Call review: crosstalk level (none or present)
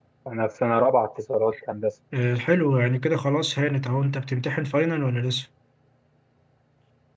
none